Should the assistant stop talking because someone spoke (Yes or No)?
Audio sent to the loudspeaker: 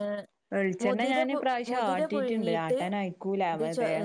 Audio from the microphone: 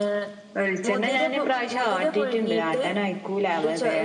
No